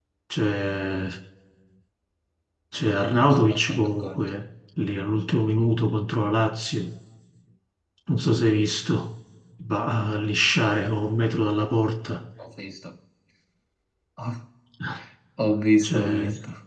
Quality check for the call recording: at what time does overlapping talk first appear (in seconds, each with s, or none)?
3.0 s